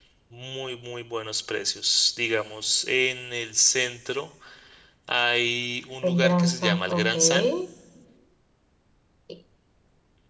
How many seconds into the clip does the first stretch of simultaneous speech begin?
6 s

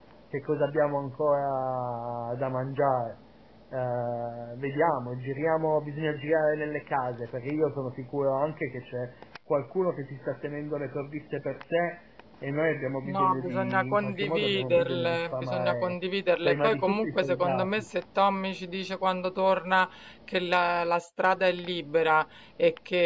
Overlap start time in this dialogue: 13 s

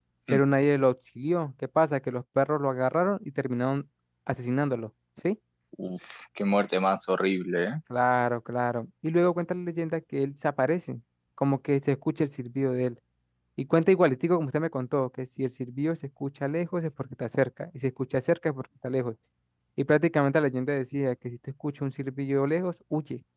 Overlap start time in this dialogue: none

